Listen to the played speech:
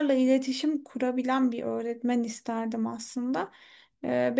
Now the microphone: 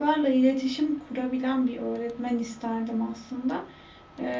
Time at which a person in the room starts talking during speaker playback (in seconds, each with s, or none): none